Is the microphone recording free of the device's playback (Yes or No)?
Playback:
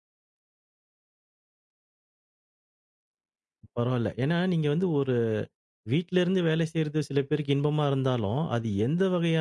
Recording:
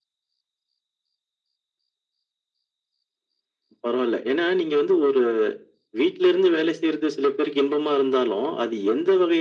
No